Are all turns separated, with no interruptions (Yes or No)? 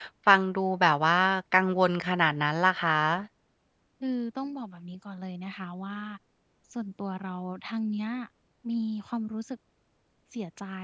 Yes